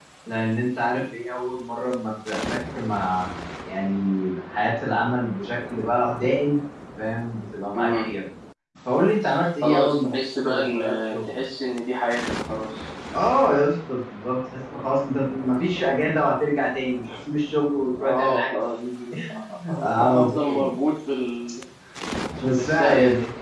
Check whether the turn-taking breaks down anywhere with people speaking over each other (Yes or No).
Yes